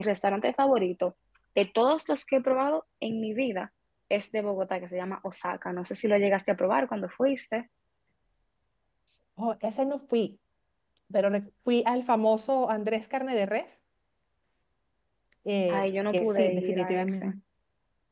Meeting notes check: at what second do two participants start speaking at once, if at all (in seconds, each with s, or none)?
15.7 s